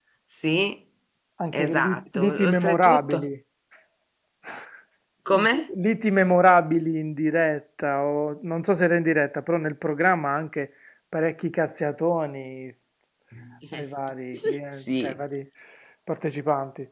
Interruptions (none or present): present